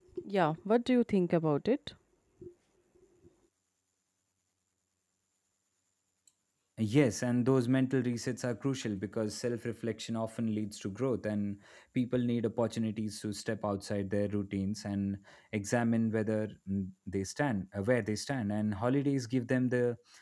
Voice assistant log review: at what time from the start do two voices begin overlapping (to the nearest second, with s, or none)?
none